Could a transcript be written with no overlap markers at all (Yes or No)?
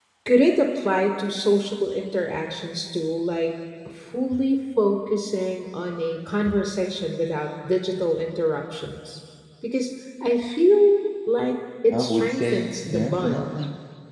No